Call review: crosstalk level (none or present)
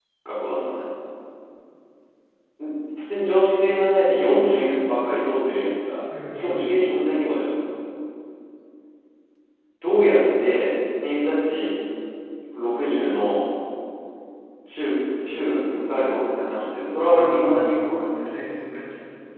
present